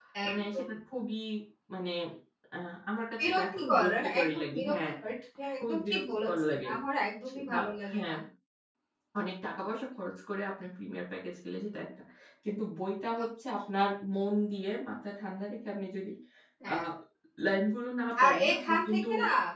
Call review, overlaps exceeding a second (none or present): present